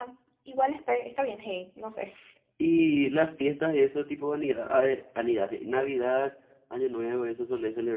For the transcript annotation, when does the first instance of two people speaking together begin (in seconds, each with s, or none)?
none